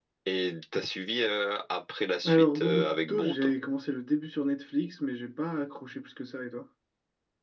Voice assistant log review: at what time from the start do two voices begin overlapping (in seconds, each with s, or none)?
2.2 s